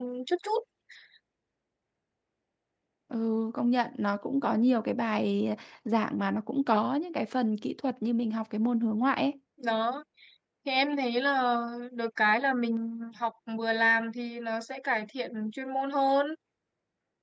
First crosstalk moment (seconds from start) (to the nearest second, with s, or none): none